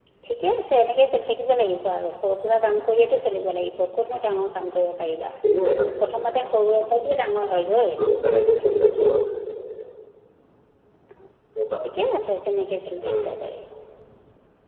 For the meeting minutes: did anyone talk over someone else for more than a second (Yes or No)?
No